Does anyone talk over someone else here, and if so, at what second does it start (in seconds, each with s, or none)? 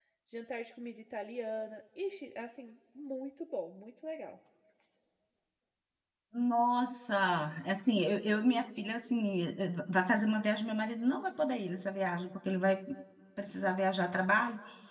none